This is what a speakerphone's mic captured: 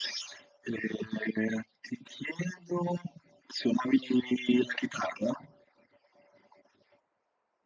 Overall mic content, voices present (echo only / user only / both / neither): echo only